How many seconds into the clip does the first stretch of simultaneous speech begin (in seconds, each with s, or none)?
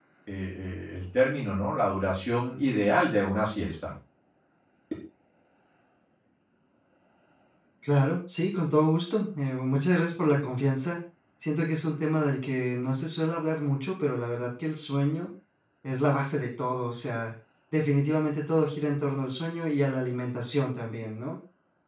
none